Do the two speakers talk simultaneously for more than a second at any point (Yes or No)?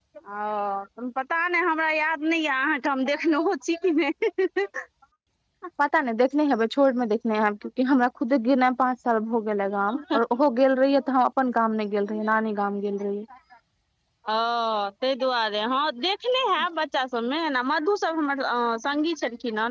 No